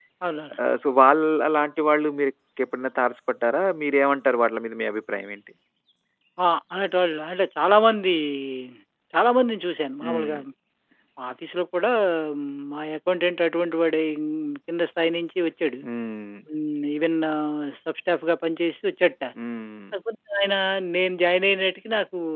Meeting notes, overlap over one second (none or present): none